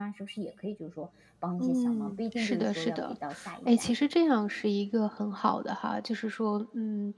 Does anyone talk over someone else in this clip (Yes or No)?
Yes